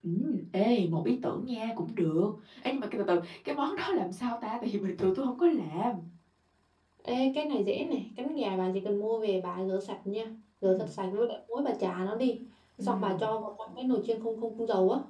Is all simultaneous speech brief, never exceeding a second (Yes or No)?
Yes